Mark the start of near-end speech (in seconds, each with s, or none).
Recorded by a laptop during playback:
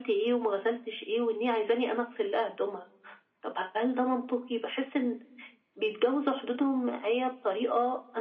none